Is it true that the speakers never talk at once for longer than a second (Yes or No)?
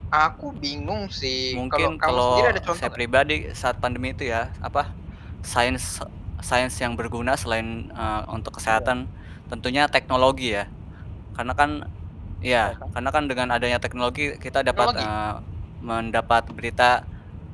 No